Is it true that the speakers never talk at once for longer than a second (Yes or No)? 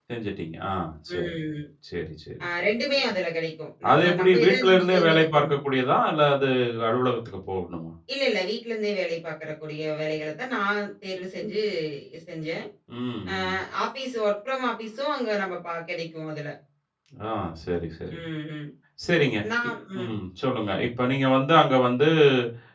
No